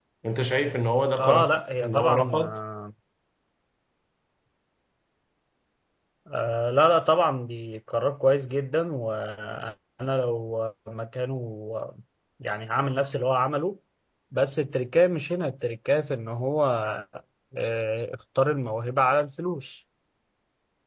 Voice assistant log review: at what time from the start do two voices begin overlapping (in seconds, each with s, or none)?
1.2 s